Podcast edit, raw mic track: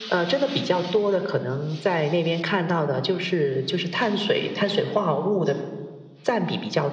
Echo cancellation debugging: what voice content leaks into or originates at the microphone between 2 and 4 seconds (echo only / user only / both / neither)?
echo only